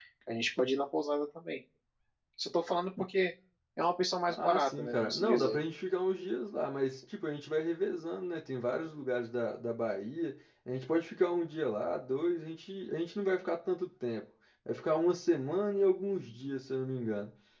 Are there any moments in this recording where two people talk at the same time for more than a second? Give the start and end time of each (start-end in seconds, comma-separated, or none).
4.3-5.6